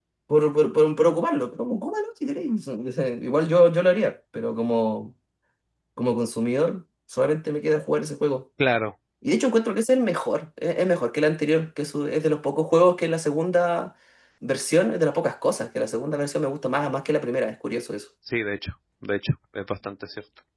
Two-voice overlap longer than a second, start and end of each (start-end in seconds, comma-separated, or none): none